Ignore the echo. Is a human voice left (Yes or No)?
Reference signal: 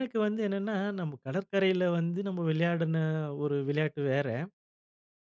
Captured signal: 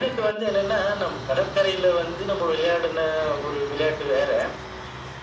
No